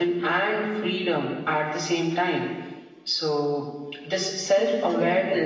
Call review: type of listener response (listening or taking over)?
listening